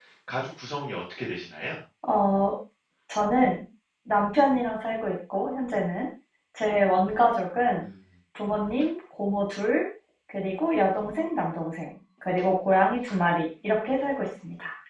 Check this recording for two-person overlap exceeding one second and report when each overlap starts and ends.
none

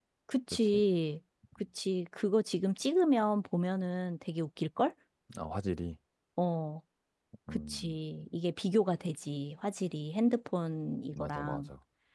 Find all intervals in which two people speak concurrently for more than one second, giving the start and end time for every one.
none

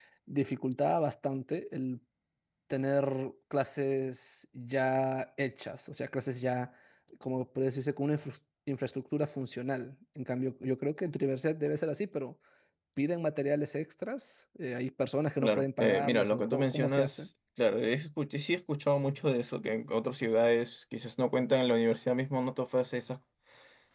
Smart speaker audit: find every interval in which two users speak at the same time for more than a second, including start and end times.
15.4-17.3

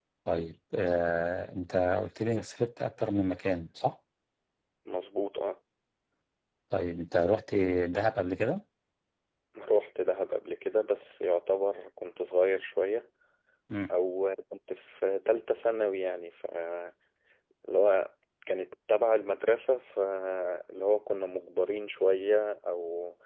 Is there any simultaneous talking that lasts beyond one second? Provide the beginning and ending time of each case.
none

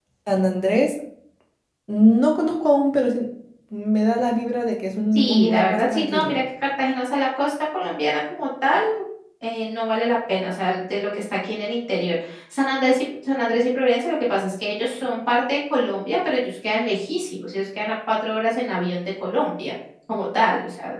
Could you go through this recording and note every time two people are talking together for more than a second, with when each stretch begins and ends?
5.1-6.4

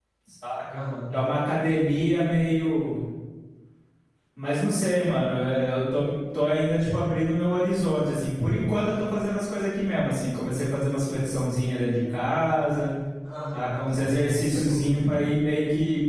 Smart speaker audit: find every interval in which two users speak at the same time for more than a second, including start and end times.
13.5-14.9

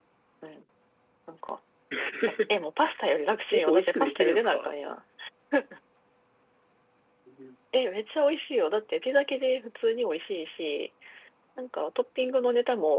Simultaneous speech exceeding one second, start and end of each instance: 3.5-4.7

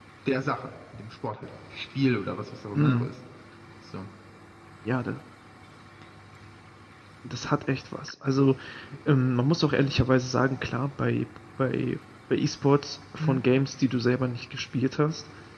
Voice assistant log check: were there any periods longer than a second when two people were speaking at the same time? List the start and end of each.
none

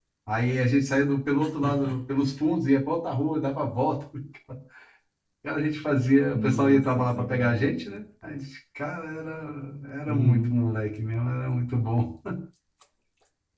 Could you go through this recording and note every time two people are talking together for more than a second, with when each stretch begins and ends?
6.3-7.7

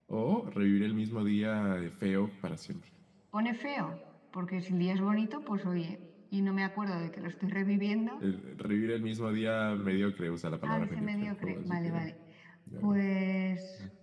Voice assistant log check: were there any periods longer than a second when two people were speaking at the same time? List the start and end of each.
10.6-11.9

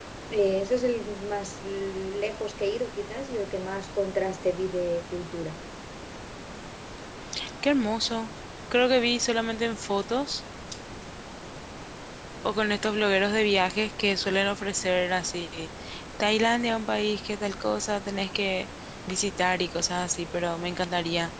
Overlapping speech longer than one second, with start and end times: none

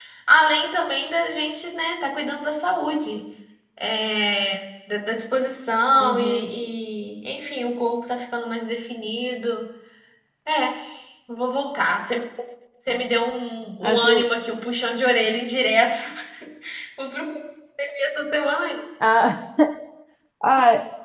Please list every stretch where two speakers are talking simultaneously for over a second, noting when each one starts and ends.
none

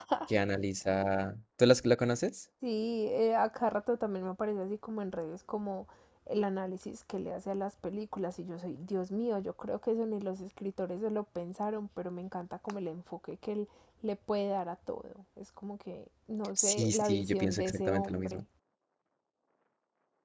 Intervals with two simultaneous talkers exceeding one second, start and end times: 16.6-18.4

